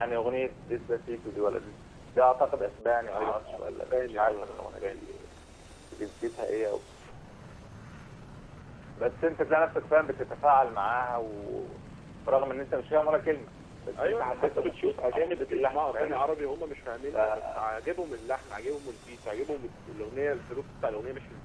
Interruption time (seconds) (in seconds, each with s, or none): 3.1 s